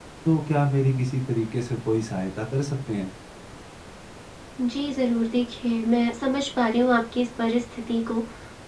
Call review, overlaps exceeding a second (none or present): none